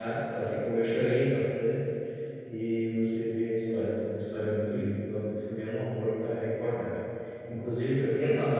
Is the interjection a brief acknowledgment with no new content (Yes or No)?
Yes